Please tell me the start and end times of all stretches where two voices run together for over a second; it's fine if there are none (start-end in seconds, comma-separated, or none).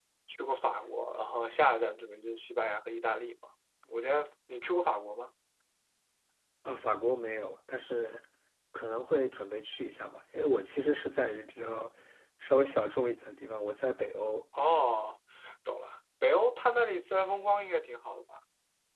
none